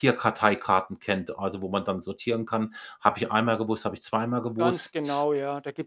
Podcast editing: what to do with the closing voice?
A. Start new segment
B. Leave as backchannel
A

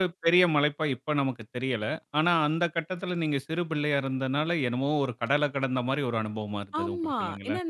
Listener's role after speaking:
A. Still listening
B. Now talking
B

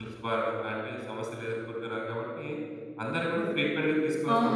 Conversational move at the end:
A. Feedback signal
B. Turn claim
B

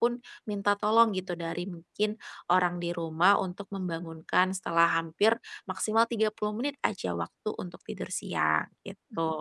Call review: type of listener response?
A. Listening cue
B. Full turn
B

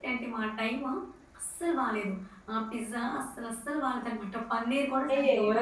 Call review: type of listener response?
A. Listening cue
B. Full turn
B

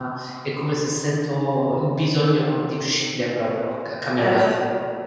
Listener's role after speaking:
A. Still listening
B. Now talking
B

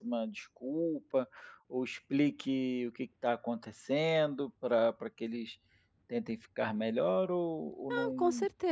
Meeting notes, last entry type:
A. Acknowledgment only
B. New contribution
B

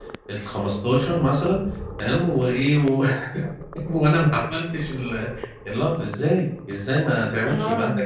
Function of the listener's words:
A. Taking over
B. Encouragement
B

